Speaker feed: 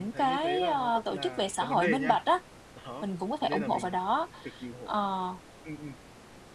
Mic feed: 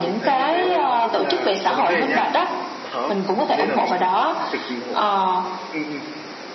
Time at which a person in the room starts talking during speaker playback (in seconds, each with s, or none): none